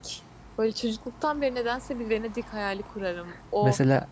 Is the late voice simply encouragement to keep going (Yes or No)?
Yes